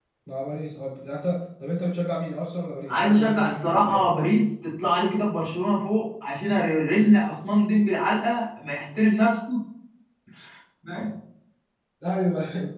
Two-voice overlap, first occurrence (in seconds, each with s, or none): 2.9 s